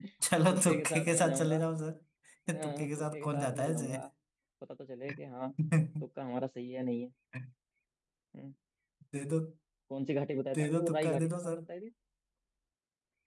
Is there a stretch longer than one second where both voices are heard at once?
Yes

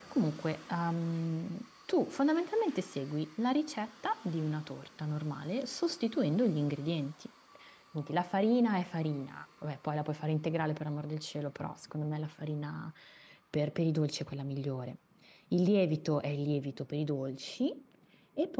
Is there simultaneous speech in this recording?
No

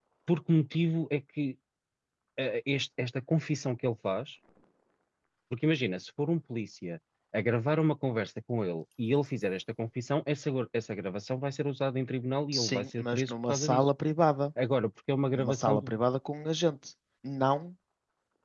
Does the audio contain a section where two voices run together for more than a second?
Yes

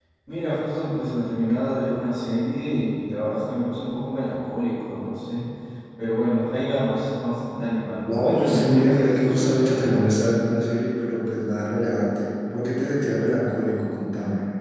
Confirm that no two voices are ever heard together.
No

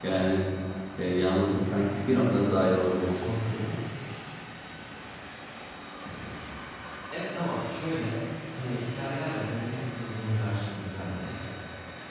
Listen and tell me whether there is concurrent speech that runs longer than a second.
No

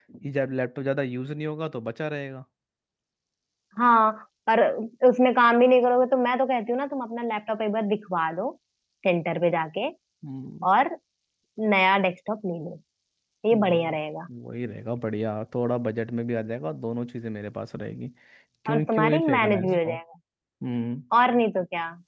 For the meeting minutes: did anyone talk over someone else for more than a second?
Yes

